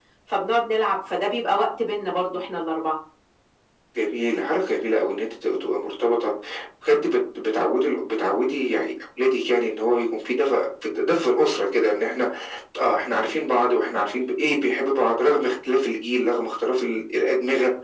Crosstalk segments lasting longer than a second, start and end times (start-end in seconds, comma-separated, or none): none